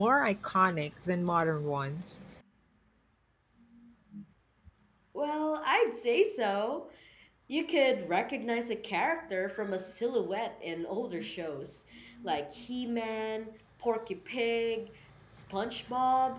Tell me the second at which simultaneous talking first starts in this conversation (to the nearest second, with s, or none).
none